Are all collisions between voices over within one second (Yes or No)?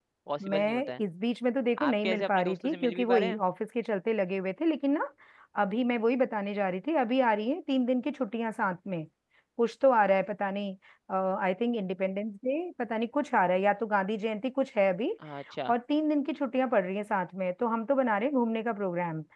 No